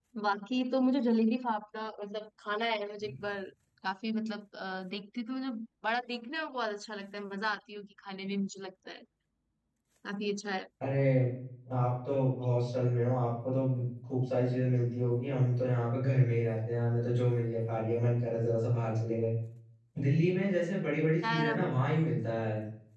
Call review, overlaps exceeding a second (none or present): none